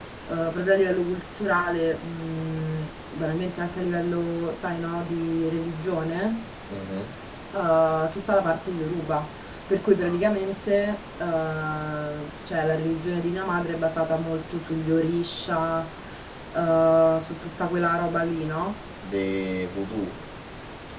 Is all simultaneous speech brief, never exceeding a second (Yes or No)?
Yes